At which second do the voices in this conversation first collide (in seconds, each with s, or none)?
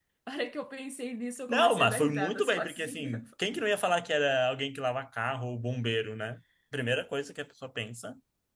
1.5 s